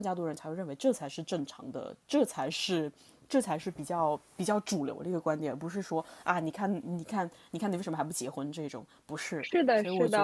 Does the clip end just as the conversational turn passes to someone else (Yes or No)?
Yes